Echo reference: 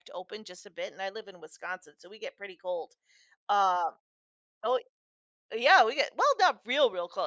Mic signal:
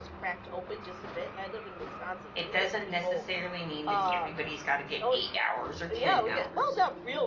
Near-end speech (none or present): present